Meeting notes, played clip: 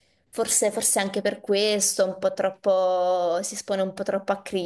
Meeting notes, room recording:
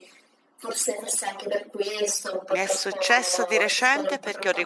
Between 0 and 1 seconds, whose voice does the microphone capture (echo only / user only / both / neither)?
echo only